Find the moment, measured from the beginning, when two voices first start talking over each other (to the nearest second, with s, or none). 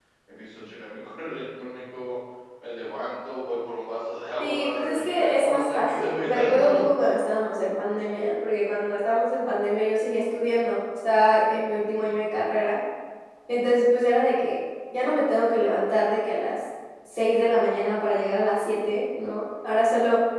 4 s